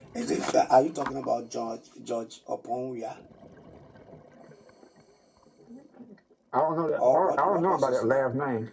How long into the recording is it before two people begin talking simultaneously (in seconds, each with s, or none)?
7.0 s